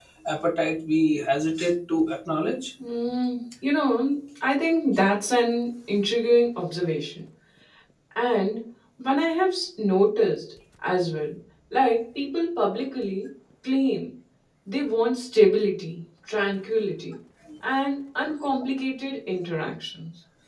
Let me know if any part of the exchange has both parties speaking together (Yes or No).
No